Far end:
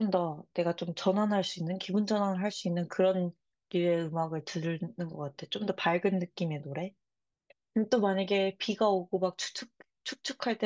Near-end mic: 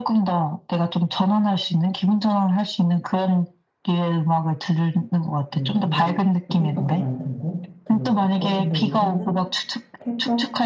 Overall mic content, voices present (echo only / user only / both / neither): both